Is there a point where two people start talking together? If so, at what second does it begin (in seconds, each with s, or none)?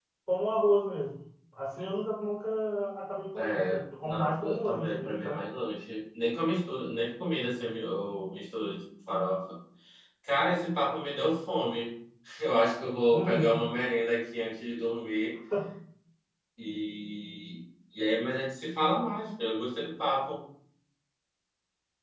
3.4 s